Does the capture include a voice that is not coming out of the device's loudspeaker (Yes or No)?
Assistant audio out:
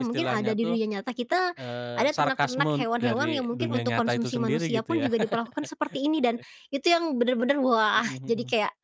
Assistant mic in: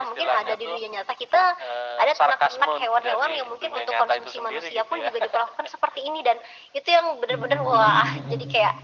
Yes